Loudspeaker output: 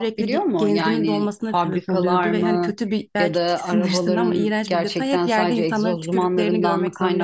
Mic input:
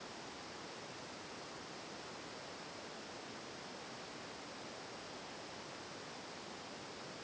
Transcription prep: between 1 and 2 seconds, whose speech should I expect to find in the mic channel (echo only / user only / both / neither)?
neither